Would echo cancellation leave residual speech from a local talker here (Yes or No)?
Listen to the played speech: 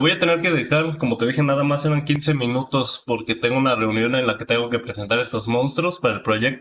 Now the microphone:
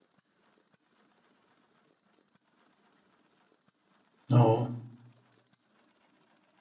Yes